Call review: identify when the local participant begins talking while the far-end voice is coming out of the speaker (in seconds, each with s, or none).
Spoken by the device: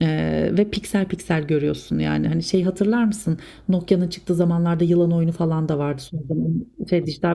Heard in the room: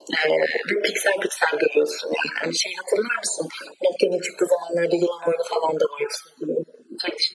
none